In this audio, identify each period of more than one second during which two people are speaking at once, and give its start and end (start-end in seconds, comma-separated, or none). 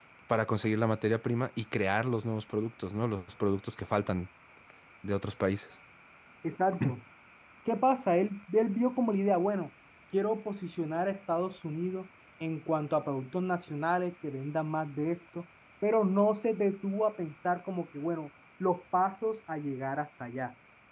none